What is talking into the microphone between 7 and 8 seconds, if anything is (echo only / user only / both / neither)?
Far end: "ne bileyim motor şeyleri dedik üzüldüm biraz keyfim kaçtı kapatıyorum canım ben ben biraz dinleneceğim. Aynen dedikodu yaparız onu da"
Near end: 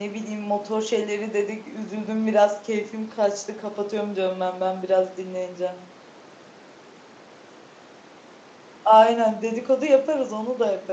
neither